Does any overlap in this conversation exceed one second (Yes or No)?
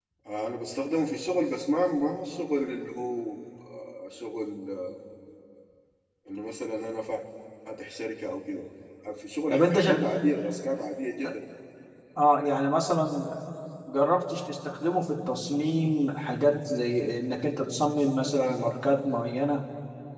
No